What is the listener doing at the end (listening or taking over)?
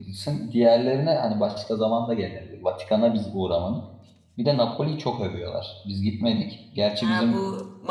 taking over